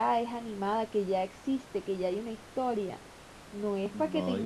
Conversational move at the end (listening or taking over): listening